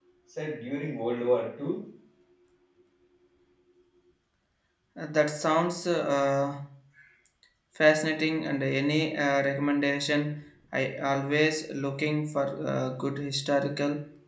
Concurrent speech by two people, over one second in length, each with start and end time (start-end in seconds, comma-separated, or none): none